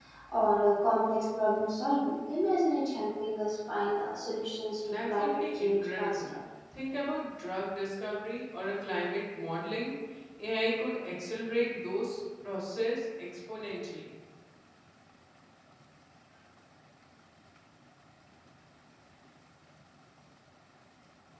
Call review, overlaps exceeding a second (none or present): present